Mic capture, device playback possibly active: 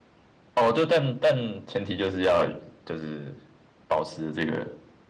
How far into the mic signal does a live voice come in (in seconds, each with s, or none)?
none